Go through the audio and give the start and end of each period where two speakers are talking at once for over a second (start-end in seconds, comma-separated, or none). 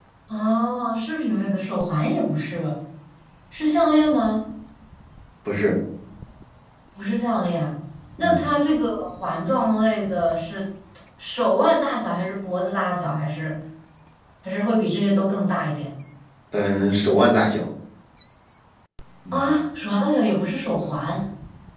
none